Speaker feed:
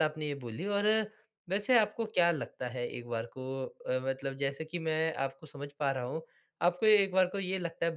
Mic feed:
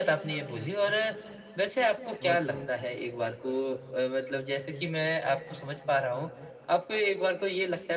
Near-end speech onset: 2.2 s

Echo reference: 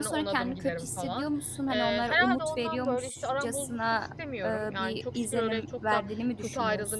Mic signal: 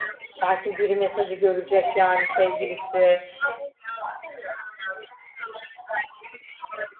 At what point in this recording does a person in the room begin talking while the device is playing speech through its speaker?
0.4 s

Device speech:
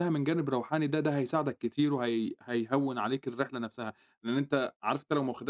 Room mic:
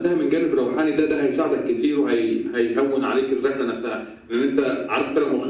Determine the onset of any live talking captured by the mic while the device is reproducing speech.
none

